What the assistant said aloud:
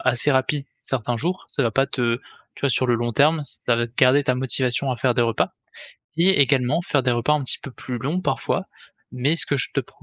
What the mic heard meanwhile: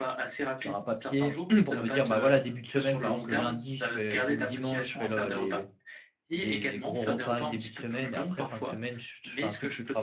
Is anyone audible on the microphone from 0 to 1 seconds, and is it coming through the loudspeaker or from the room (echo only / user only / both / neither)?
both